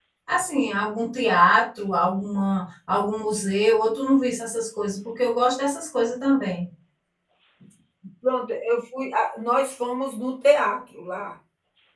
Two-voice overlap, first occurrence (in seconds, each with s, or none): none